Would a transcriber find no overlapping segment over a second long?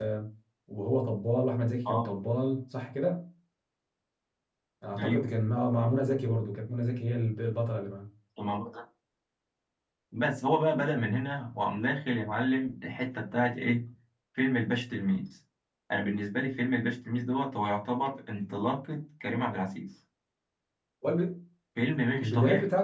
Yes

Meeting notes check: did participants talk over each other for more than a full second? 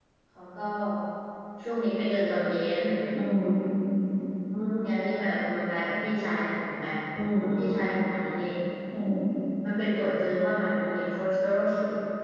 No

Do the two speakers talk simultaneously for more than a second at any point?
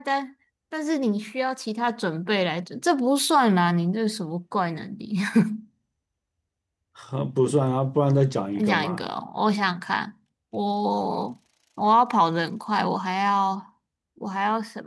No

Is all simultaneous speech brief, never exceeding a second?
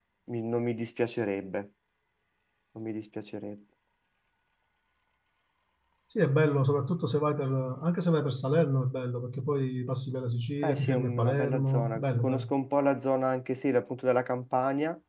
No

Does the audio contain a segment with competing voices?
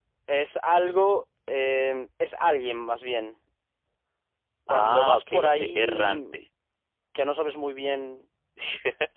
Yes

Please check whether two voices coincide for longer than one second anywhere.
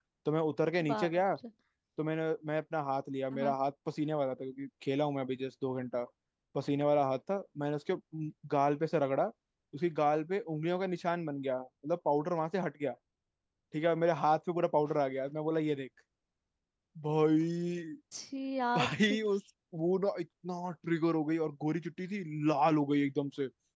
No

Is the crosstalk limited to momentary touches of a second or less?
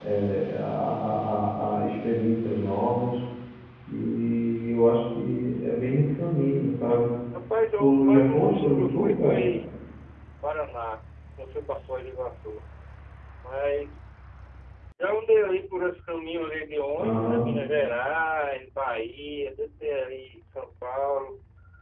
No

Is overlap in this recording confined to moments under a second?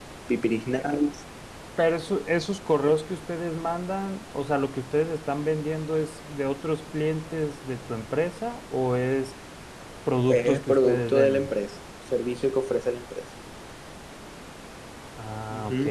No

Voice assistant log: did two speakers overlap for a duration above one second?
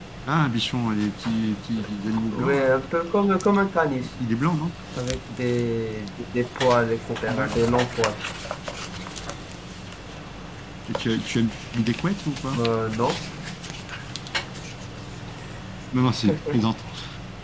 No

